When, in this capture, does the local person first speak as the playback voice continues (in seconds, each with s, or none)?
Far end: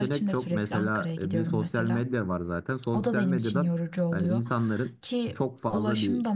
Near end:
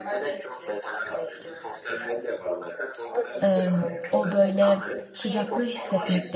3.4 s